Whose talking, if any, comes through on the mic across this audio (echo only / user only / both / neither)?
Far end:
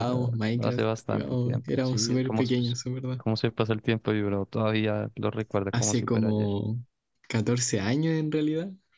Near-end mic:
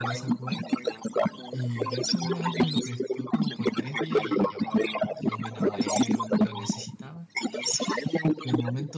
both